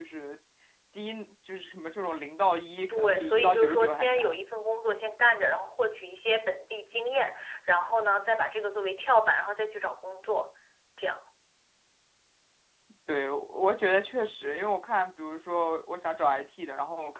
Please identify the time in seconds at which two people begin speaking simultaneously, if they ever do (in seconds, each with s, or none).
2.9 s